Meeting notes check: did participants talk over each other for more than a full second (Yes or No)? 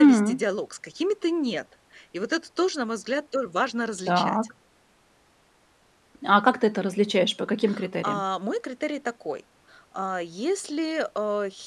No